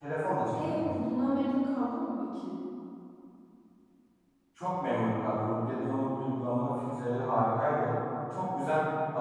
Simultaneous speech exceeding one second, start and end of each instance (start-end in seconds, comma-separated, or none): none